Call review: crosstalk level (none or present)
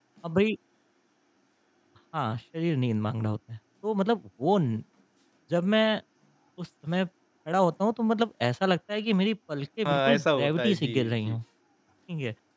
present